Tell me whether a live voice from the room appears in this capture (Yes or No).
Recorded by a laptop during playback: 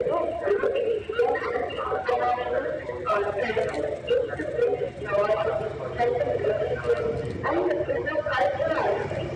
No